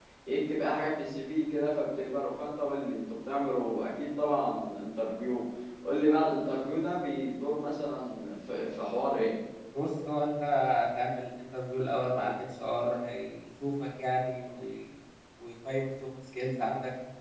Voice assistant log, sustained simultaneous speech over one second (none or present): none